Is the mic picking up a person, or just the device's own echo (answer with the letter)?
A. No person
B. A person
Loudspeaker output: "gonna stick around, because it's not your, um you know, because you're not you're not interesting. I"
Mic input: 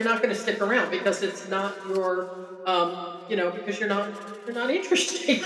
A